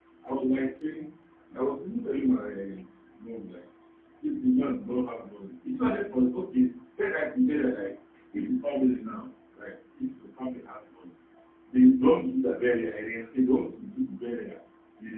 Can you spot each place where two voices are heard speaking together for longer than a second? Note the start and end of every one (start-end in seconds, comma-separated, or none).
none